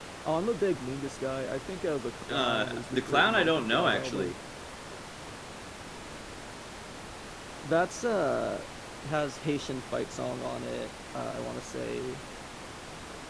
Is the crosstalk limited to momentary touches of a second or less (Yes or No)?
No